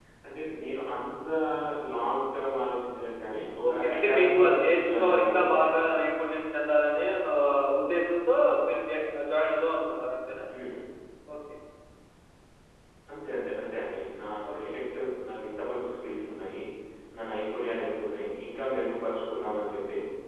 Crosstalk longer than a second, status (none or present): present